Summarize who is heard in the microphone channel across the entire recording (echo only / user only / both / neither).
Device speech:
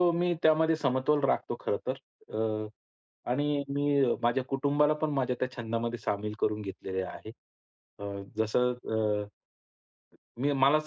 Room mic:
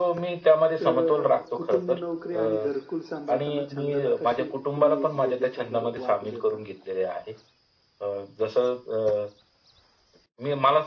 both